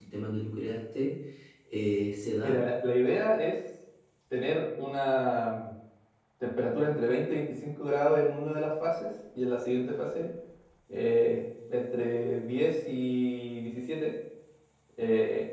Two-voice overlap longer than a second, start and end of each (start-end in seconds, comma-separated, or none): none